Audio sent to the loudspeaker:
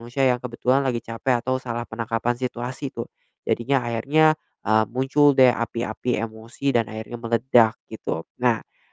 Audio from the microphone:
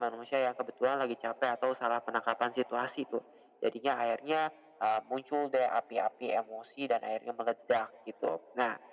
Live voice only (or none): none